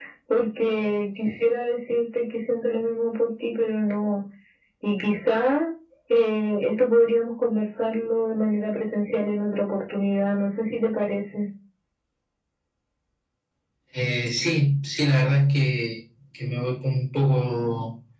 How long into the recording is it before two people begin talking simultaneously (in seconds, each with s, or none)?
none